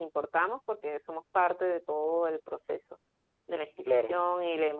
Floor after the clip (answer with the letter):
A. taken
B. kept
B